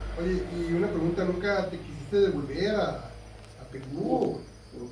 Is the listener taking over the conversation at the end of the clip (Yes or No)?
Yes